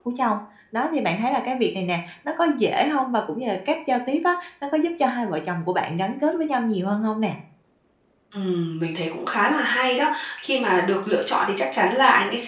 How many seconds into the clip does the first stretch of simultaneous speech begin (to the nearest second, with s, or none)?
none